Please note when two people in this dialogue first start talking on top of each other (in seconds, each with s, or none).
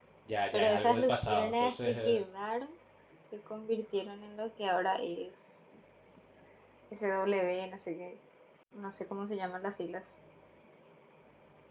0.5 s